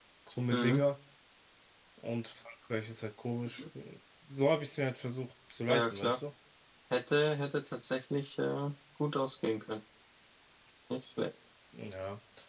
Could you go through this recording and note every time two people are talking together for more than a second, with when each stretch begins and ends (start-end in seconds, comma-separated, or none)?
none